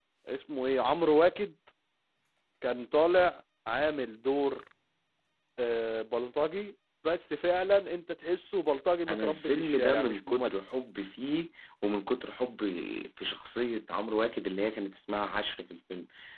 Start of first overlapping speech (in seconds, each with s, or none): 9.1 s